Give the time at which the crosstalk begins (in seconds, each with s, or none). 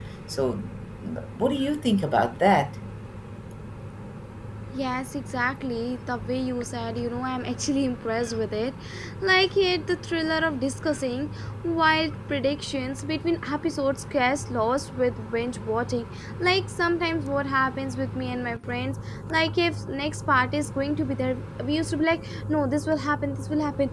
none